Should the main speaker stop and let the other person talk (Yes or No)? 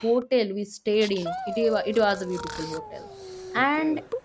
No